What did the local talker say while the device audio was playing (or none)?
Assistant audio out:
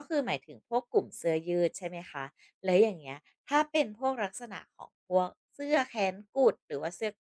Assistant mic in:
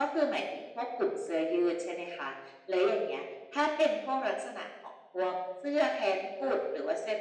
none